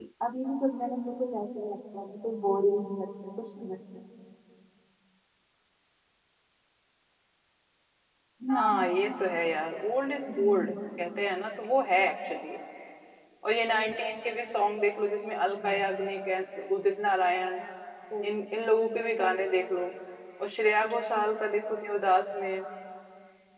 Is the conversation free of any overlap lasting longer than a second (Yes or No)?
Yes